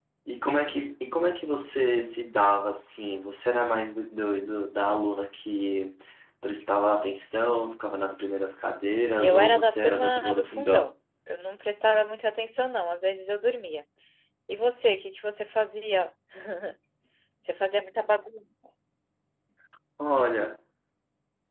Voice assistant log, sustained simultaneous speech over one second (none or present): present